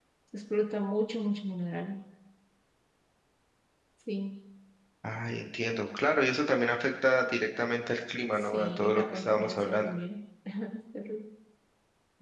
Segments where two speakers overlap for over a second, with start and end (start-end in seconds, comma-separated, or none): 8.3-9.9